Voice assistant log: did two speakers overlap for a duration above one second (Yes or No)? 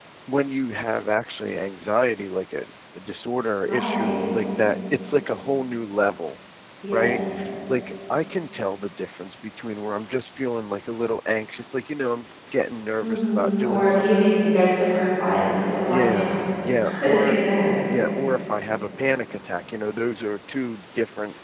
Yes